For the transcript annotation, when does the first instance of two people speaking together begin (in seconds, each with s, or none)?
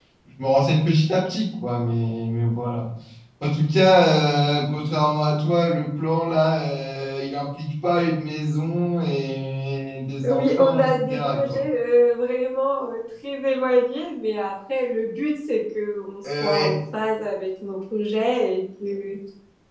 10.2 s